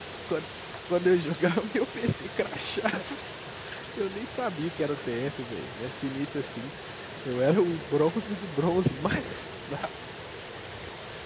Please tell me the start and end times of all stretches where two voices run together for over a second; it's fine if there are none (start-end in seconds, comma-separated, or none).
none